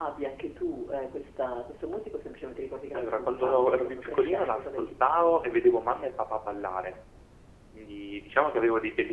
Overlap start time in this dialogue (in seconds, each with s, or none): 2.9 s